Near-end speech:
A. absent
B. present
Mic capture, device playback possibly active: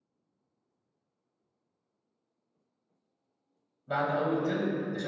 B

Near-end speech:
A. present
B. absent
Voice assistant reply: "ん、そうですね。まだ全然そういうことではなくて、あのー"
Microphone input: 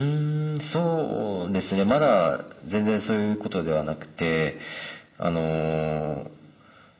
B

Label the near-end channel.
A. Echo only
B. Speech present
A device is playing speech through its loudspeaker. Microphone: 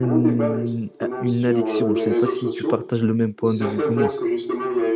B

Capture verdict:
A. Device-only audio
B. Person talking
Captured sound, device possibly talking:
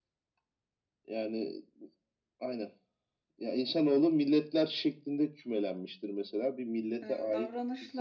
B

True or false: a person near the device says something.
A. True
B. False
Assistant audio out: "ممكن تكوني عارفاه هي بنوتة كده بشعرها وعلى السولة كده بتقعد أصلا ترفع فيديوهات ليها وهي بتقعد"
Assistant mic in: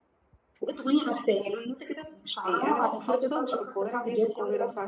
A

